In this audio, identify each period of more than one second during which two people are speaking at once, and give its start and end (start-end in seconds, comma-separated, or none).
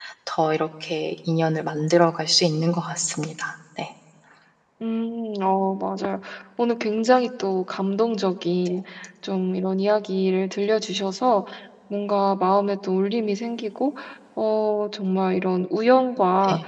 none